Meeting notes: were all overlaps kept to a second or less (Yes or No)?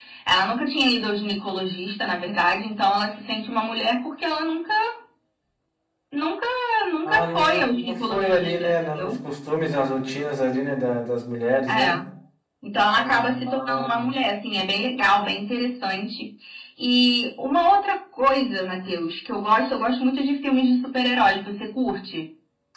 No